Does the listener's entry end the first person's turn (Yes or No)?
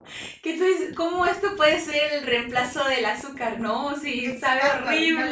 Yes